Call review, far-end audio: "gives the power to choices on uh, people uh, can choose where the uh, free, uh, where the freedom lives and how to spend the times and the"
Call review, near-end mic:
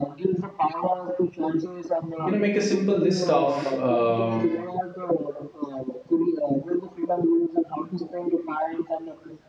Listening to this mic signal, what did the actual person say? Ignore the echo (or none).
you know make a simple list of uh,